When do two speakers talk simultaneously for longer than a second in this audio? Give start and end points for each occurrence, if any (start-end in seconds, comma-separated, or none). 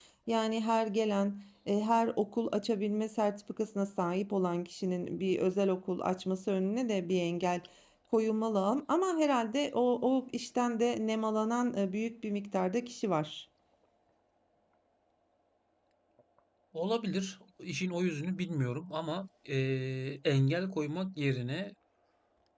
none